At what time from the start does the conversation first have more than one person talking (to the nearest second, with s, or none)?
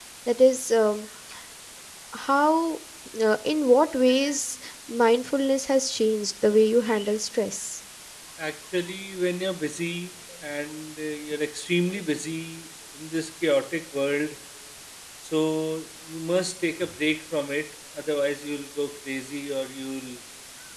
none